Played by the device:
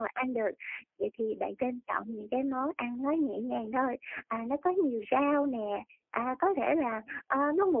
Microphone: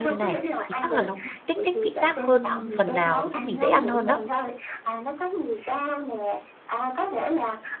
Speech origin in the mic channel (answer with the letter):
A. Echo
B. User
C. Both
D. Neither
C